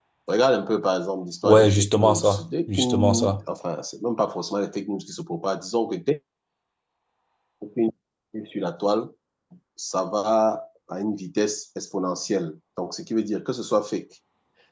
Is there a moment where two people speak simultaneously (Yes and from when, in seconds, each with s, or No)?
Yes, from 1.4 s